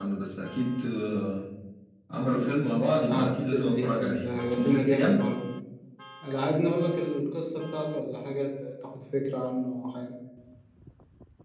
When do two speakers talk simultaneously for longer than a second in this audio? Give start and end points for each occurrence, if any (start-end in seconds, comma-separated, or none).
3.1-5.2